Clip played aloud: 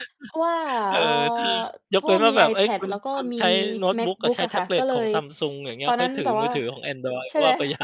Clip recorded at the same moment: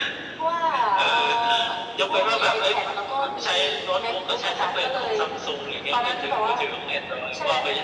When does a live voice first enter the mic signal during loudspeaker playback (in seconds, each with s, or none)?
none